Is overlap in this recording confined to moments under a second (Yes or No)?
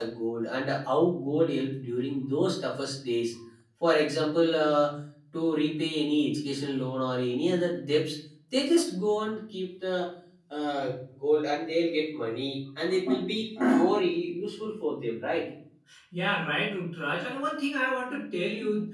Yes